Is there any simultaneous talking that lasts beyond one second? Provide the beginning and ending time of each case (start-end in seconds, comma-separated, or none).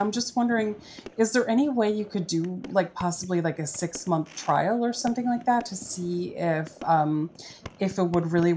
none